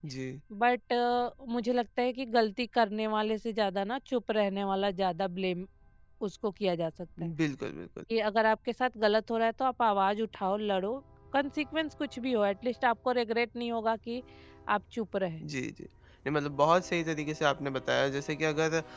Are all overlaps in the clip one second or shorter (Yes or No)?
Yes